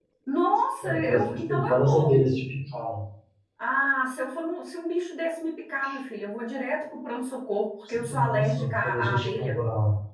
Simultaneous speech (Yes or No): Yes